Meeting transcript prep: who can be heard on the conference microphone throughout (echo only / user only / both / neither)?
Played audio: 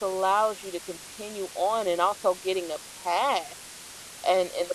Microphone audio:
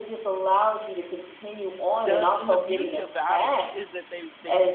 both